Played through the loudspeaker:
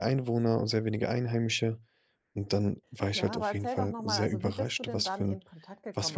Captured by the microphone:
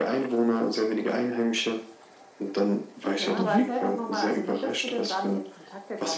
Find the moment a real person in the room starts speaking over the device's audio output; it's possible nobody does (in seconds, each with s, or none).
3.4 s